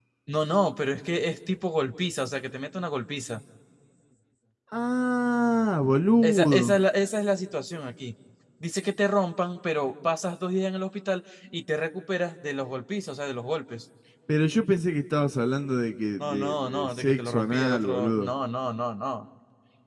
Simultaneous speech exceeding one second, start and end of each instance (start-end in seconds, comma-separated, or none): 16.2-18.3